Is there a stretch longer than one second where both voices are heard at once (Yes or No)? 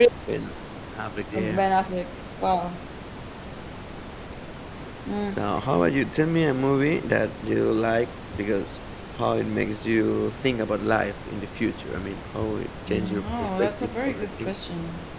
Yes